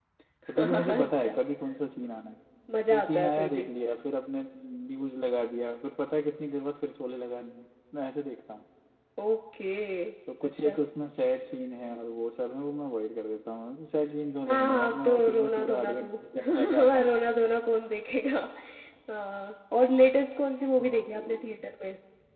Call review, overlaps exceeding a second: present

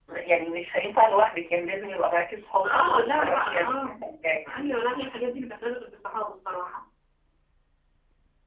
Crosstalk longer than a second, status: present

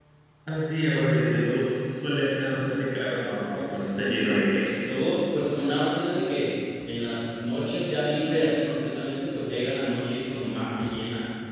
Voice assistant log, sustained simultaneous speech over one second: present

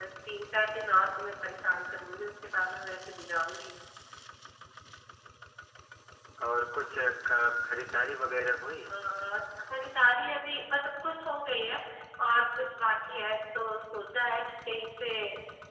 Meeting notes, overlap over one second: none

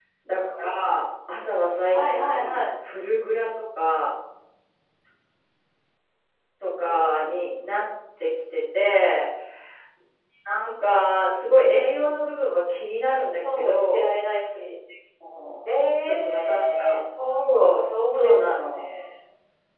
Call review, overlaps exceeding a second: present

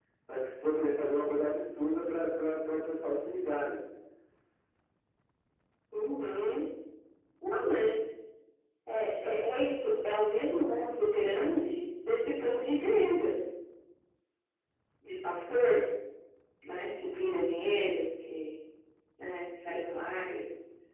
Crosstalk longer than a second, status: none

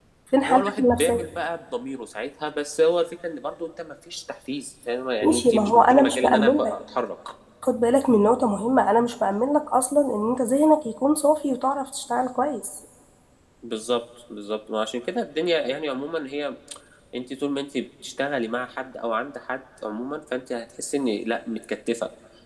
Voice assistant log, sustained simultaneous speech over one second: present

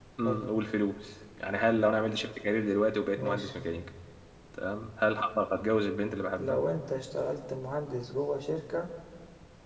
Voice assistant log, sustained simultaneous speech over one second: none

